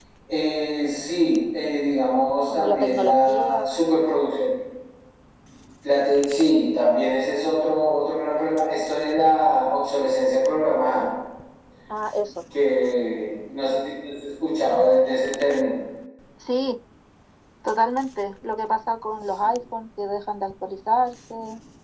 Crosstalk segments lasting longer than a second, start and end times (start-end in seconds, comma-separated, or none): 2.5-3.7